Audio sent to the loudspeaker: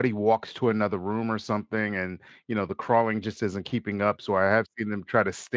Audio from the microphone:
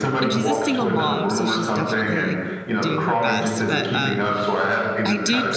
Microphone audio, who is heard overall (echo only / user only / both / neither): both